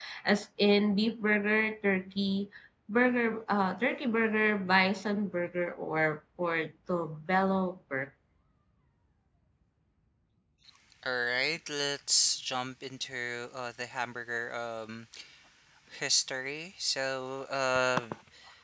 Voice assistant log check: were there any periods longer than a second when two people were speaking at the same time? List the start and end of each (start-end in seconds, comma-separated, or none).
none